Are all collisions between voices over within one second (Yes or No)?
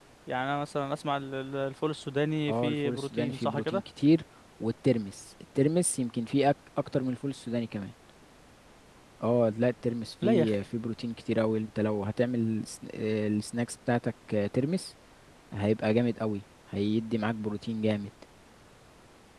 No